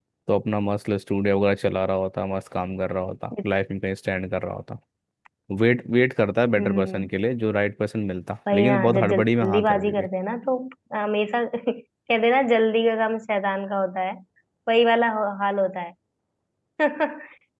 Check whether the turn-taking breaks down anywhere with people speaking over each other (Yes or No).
Yes